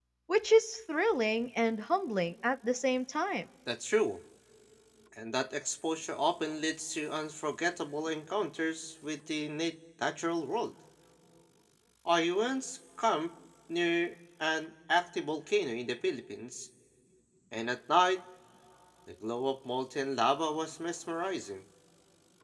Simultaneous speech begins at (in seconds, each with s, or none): none